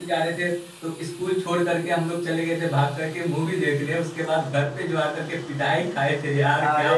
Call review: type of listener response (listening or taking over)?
taking over